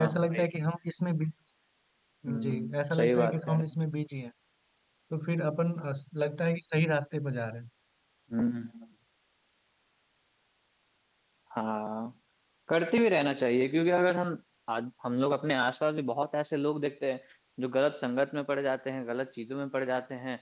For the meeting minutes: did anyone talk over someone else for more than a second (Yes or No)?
Yes